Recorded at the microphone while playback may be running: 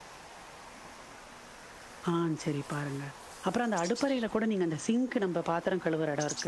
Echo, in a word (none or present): none